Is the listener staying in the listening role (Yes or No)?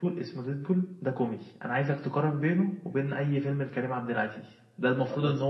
Yes